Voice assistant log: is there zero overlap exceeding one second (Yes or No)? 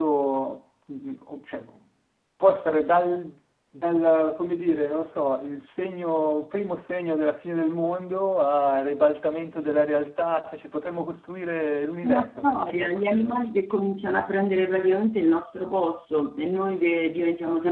No